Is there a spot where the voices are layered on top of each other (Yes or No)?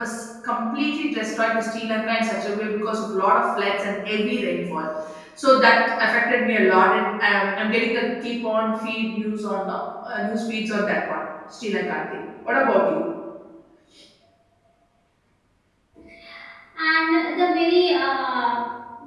No